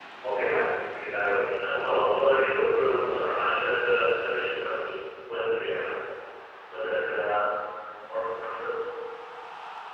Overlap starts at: 2 s

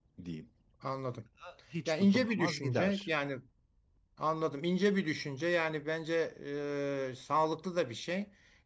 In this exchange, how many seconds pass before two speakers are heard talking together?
2 s

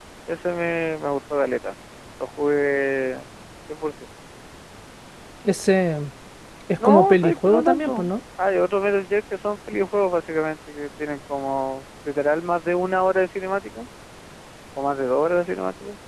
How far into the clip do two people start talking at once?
7 s

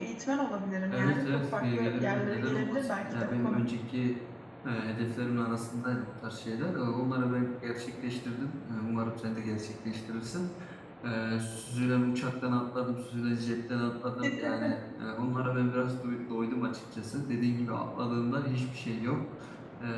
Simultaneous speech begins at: 1 s

